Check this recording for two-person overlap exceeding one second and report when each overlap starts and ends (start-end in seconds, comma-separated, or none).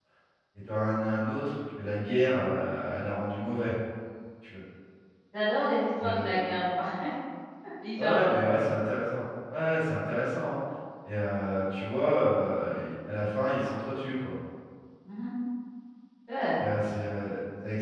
none